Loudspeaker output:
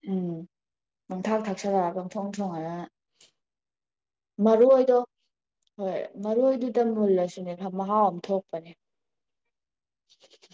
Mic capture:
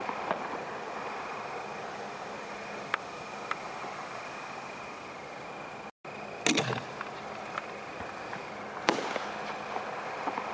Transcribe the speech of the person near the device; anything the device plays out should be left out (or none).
none